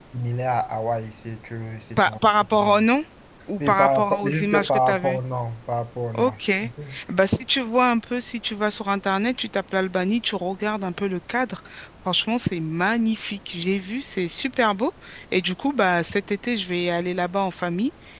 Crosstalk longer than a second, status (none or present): present